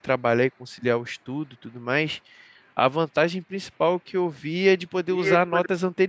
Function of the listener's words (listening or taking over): listening